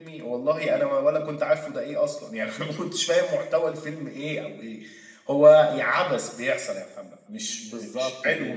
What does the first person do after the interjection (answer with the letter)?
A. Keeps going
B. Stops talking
B